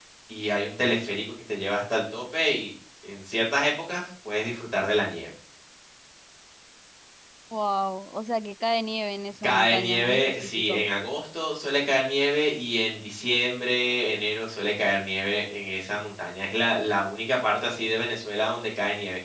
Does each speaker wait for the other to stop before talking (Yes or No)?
No